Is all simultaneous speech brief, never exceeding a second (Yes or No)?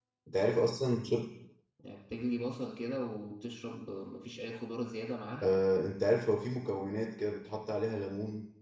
Yes